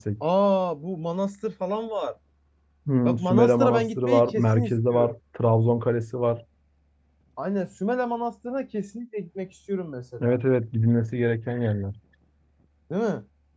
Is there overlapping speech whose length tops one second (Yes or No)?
Yes